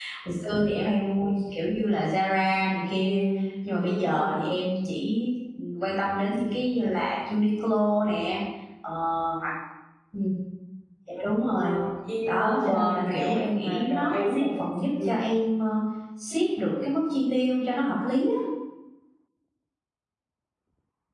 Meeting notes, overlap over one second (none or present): present